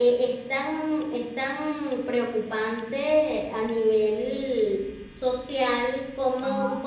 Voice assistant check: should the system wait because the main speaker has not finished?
Yes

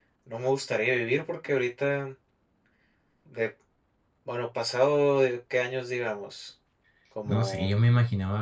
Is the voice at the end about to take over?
Yes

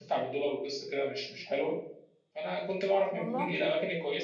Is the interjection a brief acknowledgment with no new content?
Yes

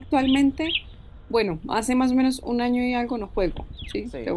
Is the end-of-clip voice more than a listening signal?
Yes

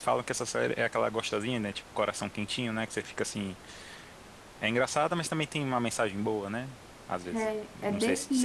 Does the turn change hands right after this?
Yes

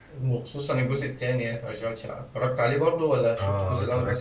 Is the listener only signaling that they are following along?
No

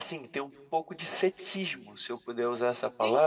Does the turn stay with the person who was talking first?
Yes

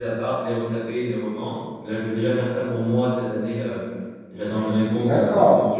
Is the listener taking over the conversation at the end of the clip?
Yes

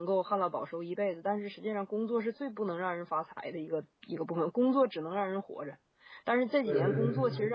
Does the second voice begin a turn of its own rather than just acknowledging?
No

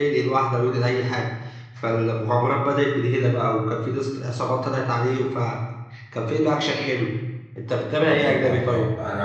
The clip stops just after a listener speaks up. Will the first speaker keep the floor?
No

